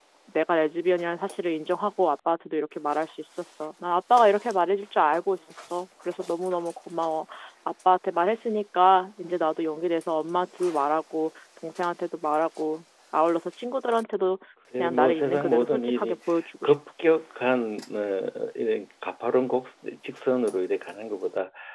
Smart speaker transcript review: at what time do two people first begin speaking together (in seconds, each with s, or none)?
14.8 s